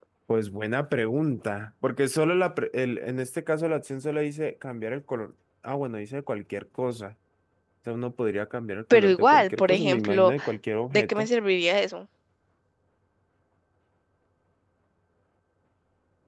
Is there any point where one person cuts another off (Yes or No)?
Yes